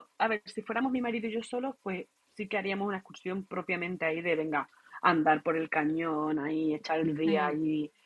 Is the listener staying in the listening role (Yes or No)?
Yes